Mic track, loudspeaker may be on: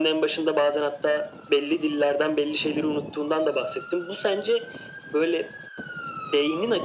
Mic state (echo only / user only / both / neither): echo only